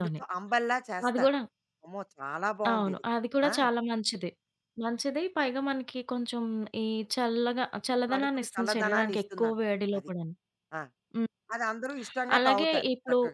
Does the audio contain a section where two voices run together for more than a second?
Yes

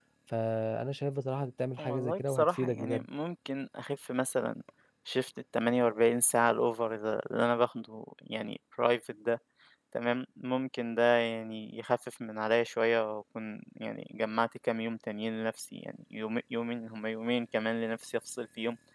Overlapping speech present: Yes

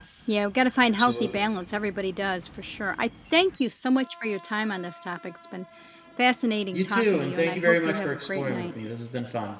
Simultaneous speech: Yes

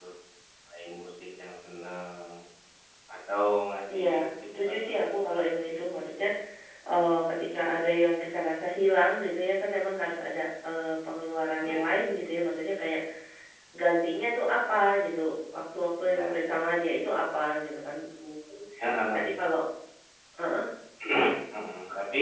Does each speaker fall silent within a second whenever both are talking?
No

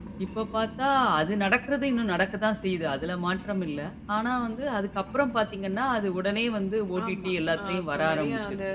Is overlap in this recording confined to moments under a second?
No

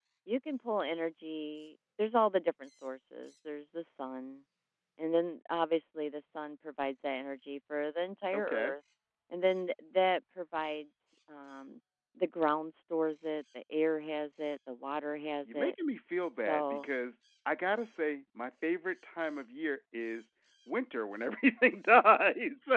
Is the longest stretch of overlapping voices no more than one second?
Yes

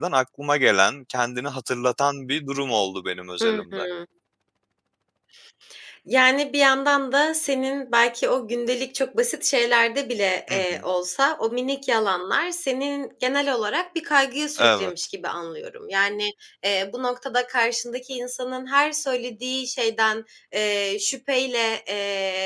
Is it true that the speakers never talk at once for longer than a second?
Yes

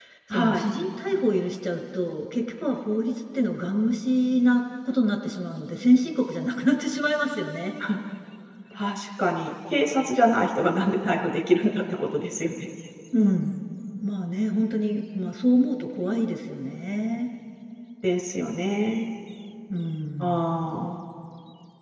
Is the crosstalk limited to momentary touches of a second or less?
Yes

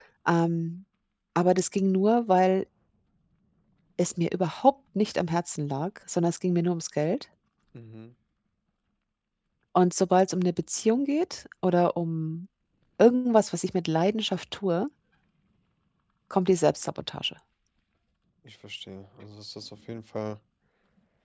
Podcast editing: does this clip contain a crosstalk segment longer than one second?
No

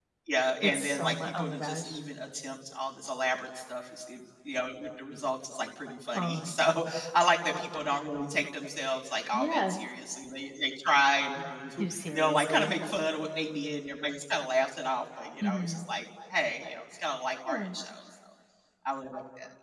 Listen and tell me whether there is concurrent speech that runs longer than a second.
Yes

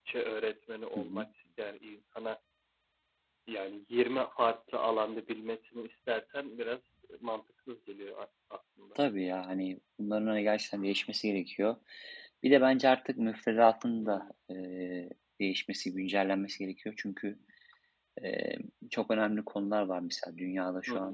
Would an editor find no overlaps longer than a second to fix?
Yes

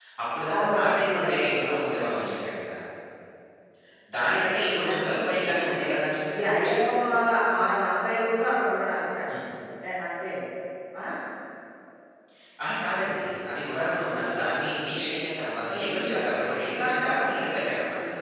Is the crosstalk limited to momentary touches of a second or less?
No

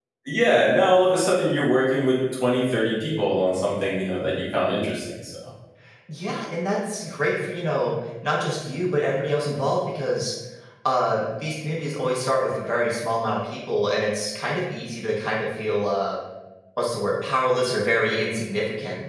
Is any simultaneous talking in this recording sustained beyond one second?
No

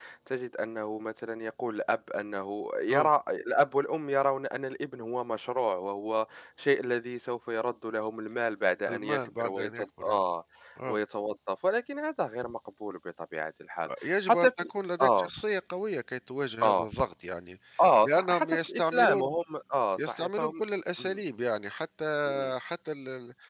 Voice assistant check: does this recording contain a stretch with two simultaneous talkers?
Yes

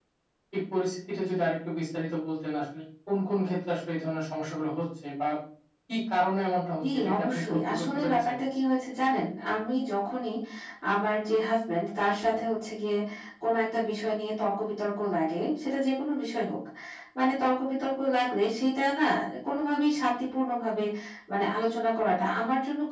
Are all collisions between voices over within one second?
No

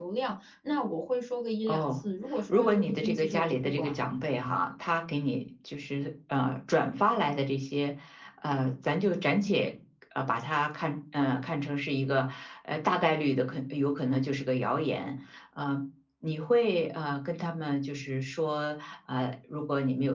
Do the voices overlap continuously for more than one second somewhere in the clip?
Yes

